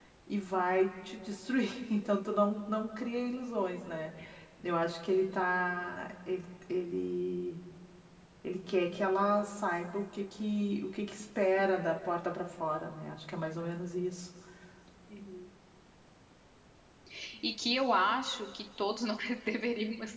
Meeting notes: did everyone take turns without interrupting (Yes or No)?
Yes